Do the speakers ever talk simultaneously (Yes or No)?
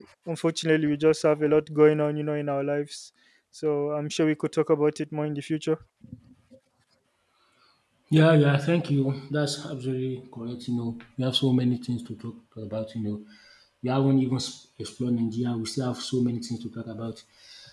No